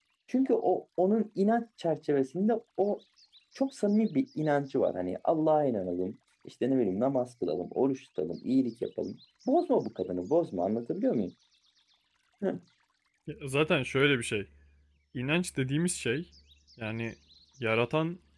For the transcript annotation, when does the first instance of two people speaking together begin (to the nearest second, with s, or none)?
none